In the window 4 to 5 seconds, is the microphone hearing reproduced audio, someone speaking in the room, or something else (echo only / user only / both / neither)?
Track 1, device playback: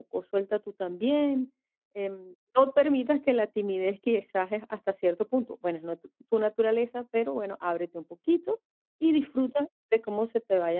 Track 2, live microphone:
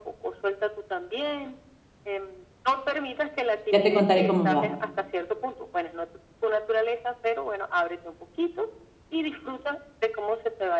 both